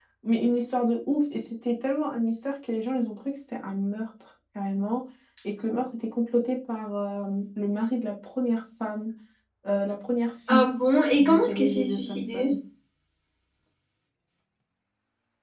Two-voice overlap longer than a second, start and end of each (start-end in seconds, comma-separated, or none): 11.2-12.5